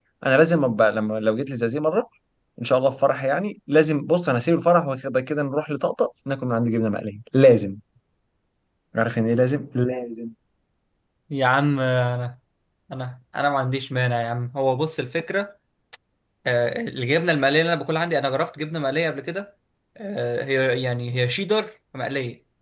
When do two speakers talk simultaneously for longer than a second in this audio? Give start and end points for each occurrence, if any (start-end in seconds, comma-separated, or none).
none